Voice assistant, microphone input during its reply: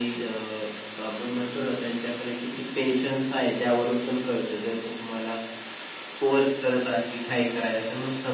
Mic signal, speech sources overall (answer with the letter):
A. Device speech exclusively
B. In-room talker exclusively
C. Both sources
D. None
A